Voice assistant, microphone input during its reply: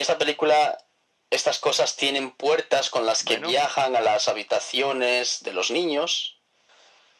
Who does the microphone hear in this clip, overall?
both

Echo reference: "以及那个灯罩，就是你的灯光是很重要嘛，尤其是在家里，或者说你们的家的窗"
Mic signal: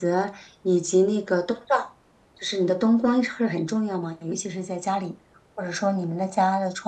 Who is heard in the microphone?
echo only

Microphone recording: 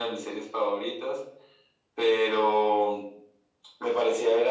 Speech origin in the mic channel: echo only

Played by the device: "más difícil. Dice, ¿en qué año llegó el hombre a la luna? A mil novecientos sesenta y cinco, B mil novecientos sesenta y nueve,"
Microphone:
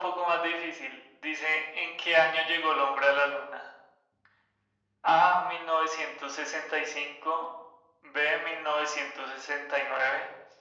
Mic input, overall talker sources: echo only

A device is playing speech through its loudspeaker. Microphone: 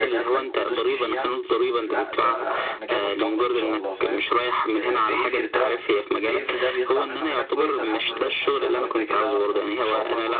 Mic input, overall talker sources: both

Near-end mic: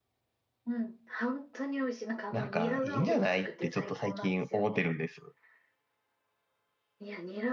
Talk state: both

